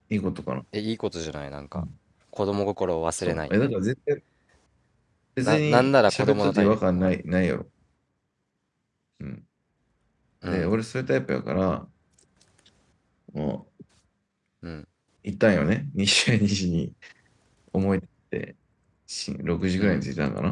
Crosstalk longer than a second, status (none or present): present